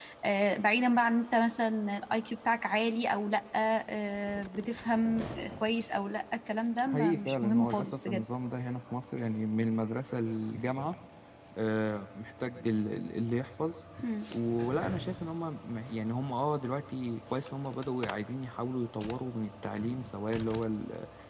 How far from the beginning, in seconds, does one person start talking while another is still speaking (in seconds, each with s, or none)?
6.9 s